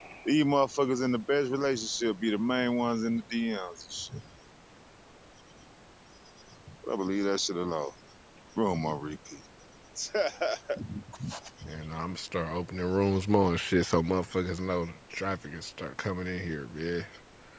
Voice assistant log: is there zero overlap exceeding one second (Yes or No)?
Yes